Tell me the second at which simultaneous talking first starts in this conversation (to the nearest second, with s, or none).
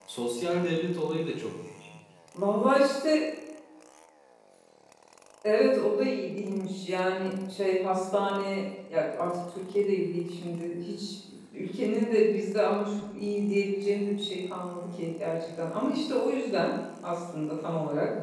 none